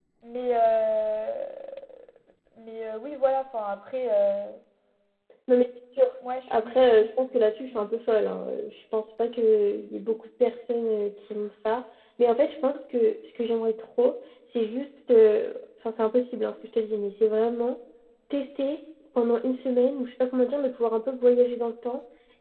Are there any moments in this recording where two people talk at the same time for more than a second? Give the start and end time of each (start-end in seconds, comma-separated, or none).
none